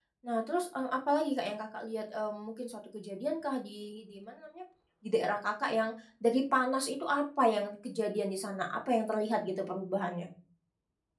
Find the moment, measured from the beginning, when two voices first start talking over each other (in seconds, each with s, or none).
none